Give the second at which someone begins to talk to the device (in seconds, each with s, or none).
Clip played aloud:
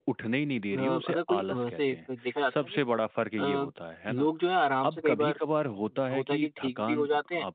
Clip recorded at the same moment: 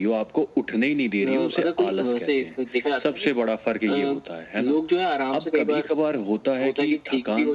none